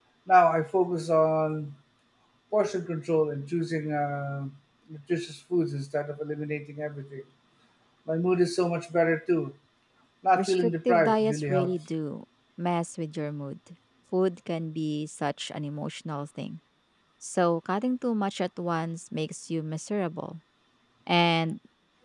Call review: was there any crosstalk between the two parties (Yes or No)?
Yes